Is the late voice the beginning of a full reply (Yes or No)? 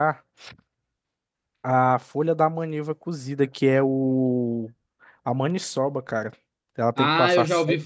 Yes